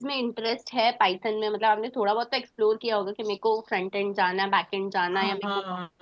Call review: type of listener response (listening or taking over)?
taking over